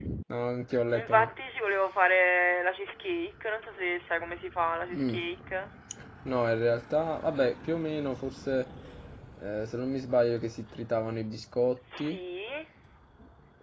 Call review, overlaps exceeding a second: none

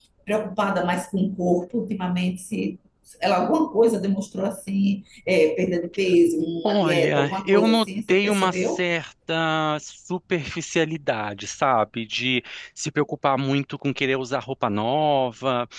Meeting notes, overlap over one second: present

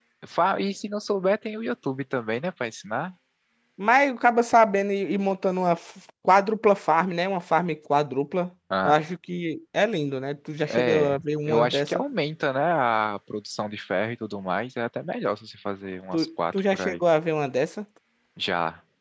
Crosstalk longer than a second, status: present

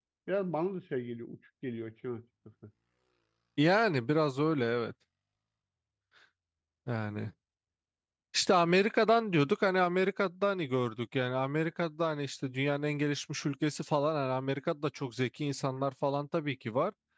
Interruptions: none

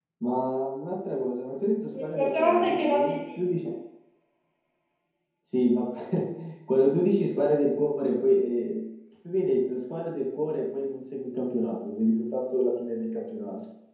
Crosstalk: present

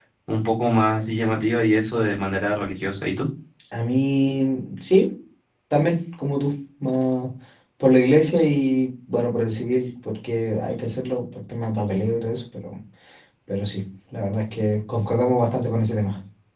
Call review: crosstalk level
none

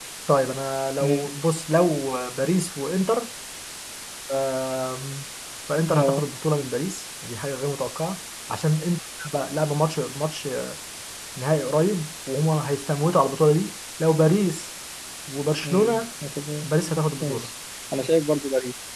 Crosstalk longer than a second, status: none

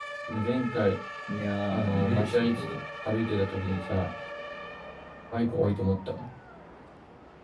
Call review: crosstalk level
present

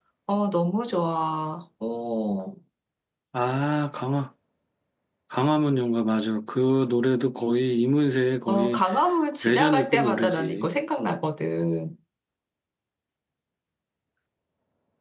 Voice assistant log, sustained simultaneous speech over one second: present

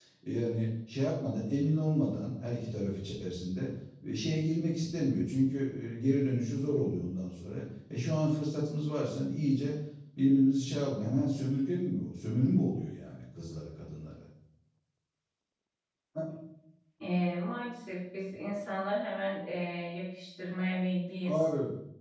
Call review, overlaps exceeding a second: none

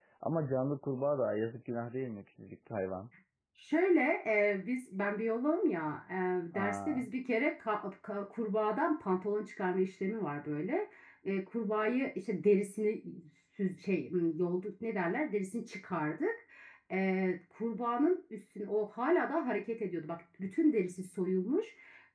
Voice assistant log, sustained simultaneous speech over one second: none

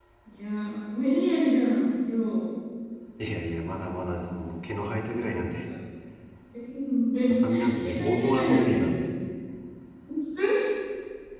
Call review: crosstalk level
present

